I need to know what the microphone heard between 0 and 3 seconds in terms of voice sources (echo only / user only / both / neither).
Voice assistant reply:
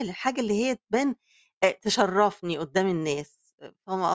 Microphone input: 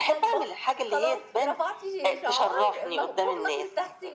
both